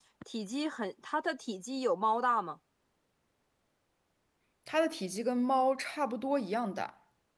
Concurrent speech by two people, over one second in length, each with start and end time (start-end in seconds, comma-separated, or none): none